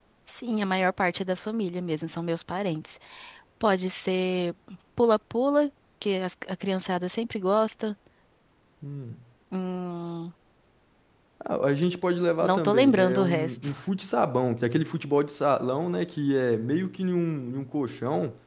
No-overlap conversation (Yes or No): No